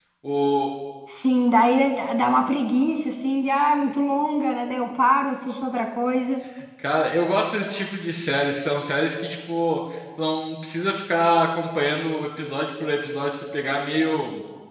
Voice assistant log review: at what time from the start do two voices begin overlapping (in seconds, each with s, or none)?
none